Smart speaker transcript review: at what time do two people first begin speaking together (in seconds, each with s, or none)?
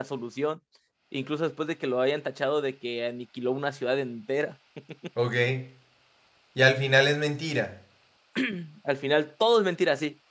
none